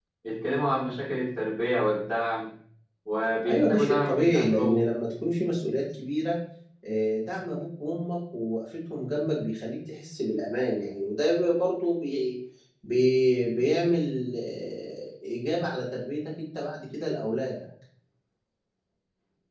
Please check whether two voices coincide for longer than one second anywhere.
Yes, from 3.5 s

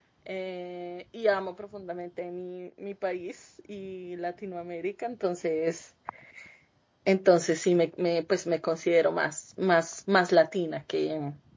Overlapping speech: No

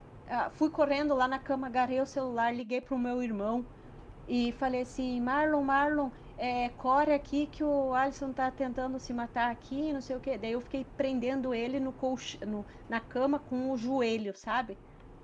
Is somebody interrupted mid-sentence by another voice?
No

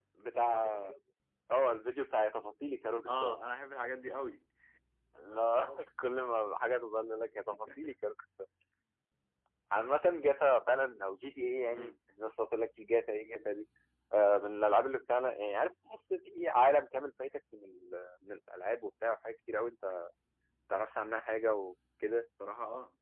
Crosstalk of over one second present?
No

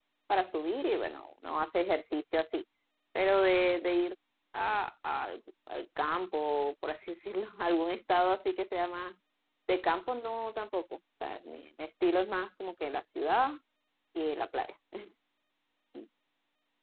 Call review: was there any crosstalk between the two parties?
No

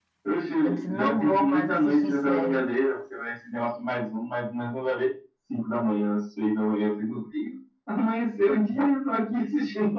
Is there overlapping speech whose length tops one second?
Yes, from 0.6 s

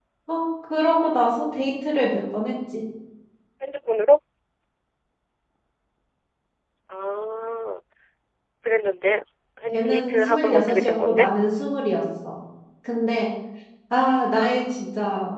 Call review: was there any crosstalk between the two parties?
Yes, from 9.7 s

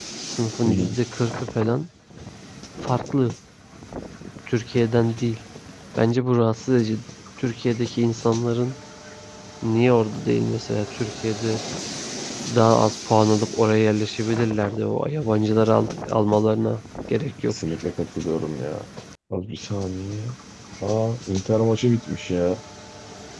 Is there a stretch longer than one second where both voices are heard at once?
No

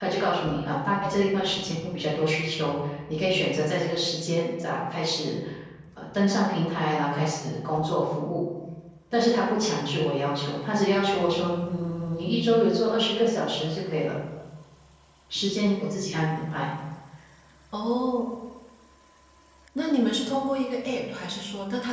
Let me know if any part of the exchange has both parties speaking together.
No

